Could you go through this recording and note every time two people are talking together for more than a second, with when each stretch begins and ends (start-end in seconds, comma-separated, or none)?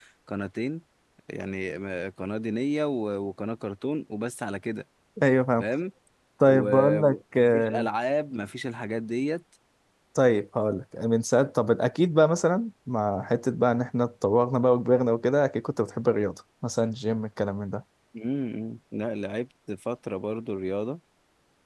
6.5-7.9